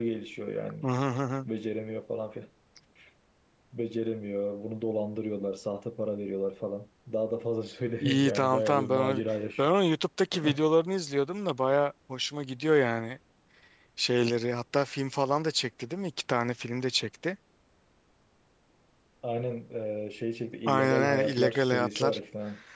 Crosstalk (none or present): present